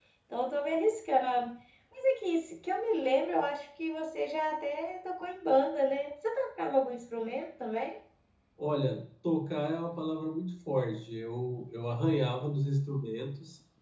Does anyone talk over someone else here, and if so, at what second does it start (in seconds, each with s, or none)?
none